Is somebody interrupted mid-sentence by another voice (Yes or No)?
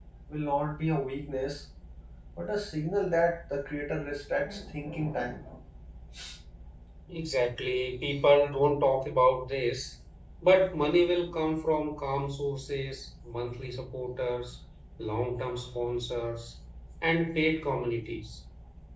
No